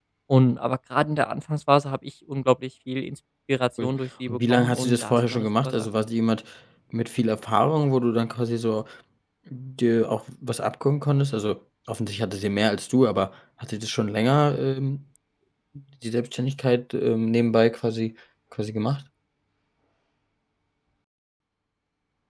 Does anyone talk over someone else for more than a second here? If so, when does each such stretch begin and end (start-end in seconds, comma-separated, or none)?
4.3-5.9